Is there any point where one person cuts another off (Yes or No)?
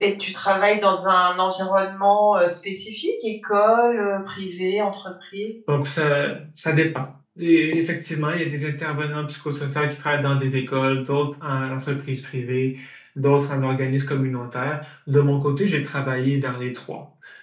No